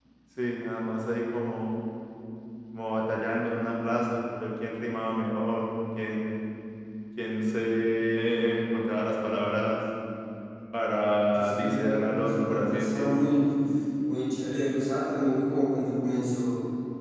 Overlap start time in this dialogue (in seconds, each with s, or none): 11.3 s